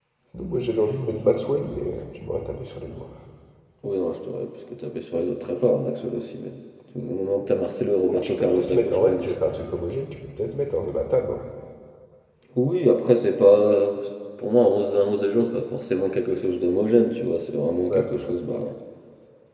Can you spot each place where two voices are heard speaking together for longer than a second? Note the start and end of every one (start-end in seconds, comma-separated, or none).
8.1-9.3